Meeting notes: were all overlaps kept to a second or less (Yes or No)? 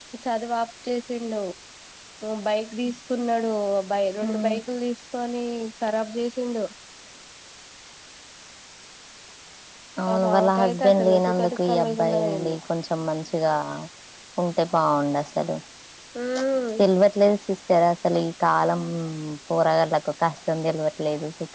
No